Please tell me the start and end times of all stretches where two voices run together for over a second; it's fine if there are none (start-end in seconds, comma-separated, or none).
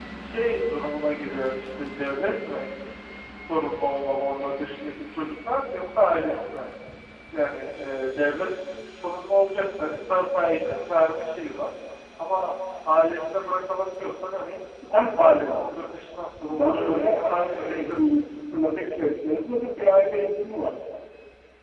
16.5-18.2